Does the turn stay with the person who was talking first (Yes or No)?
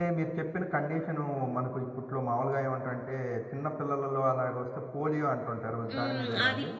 No